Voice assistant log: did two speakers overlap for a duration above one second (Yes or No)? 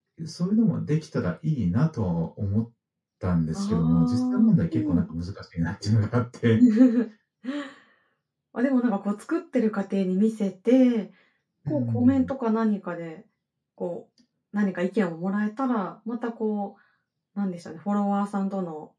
Yes